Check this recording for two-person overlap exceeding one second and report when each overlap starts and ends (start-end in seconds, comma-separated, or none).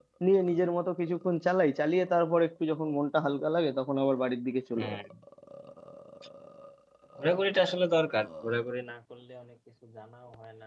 none